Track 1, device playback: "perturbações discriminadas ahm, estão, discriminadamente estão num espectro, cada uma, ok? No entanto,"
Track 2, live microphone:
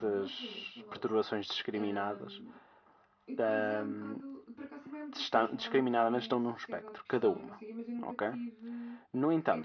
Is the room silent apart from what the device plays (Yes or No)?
No